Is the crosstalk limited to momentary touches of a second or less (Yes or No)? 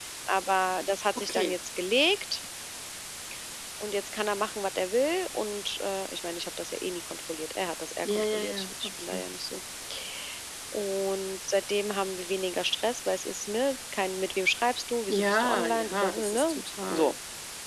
No